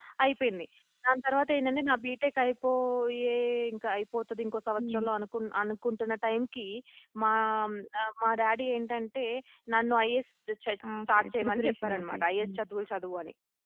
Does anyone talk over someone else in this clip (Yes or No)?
Yes